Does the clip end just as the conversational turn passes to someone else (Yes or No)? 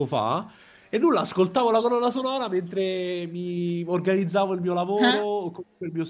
No